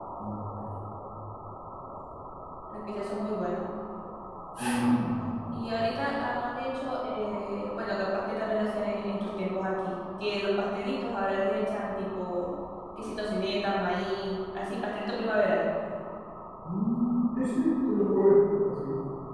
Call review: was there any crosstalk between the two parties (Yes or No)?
No